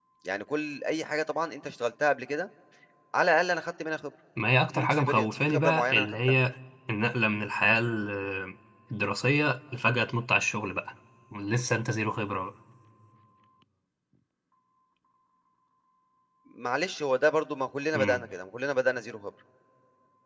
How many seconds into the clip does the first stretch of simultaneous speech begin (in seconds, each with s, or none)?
4.7 s